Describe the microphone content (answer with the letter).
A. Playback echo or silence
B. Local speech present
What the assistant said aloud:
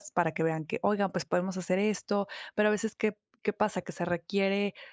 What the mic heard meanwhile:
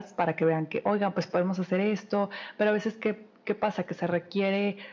A